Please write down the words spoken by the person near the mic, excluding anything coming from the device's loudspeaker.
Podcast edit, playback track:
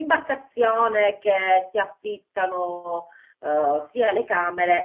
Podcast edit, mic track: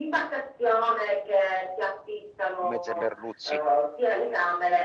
in mezzo ai merluzzi.

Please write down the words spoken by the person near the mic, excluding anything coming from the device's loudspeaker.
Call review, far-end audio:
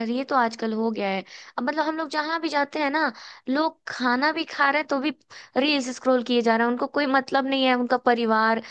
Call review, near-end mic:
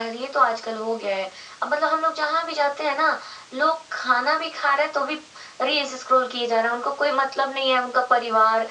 none

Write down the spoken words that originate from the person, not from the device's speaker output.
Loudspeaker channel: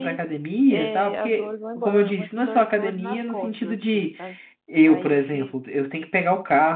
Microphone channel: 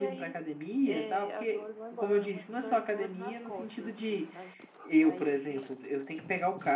none

